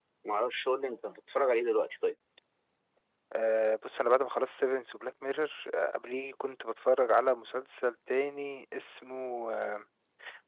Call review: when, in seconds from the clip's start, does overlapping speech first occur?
none

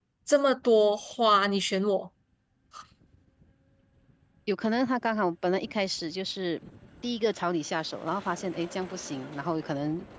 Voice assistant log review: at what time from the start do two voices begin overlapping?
none

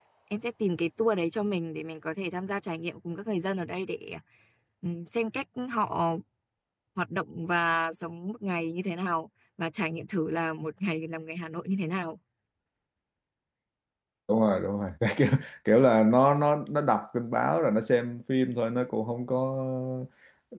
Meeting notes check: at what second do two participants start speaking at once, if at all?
none

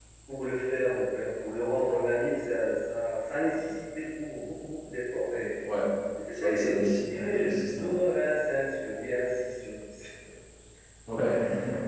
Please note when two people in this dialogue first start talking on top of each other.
6.3 s

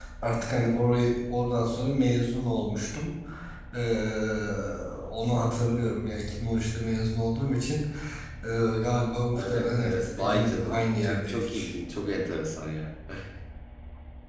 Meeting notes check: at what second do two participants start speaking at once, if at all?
9.3 s

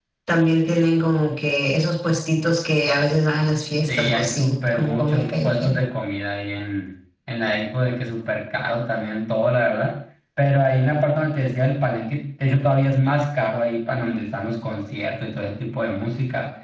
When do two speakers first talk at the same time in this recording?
3.9 s

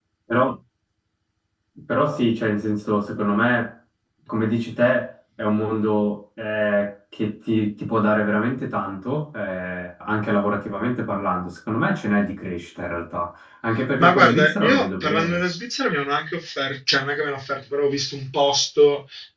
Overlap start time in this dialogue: 14.0 s

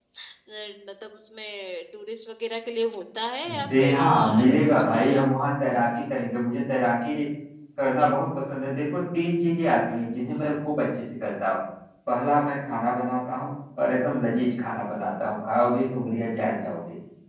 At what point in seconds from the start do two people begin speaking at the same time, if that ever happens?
3.4 s

